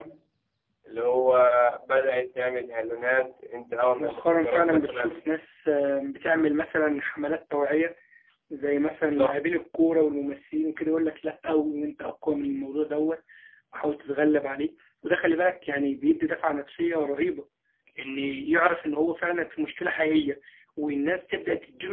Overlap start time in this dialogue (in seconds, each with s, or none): 4.0 s